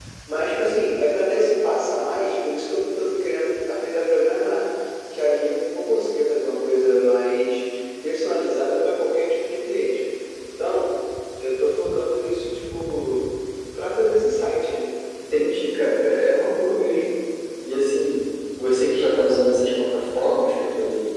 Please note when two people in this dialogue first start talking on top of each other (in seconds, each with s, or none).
none